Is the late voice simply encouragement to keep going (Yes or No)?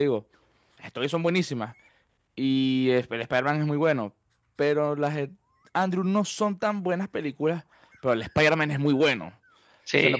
Yes